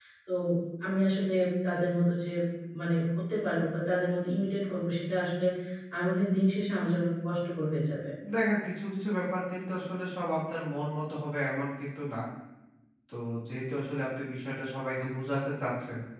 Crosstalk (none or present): none